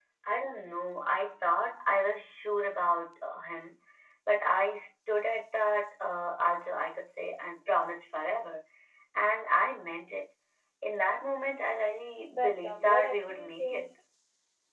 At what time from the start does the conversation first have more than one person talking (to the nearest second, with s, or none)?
12 s